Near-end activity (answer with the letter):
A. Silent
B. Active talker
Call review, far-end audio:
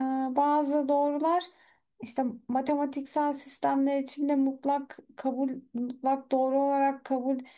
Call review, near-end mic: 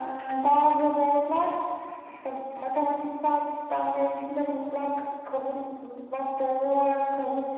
A